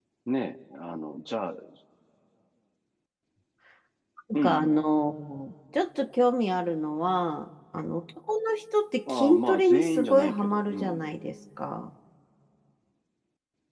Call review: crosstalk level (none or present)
present